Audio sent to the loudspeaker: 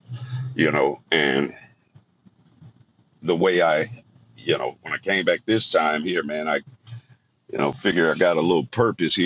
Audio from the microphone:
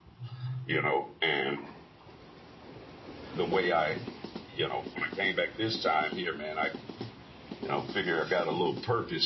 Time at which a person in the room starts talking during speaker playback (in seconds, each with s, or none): none